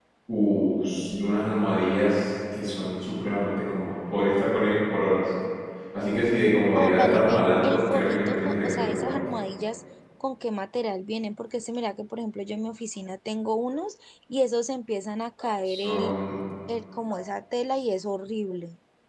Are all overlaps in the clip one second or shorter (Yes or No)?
No